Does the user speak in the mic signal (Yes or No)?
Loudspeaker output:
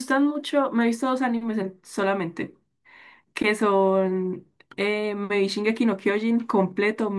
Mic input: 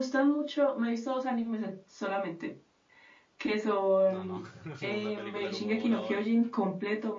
Yes